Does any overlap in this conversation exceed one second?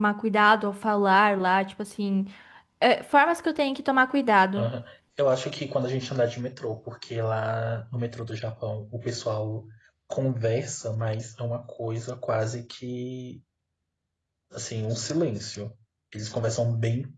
No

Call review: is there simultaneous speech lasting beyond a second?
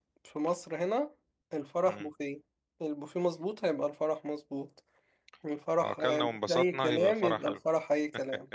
Yes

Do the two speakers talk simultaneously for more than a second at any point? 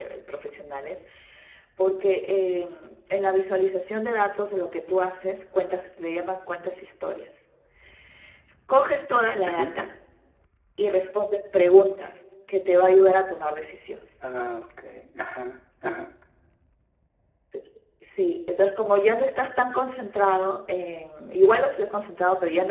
No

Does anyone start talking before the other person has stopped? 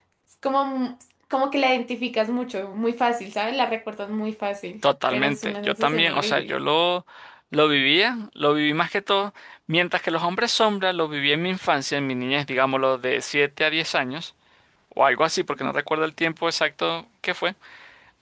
Yes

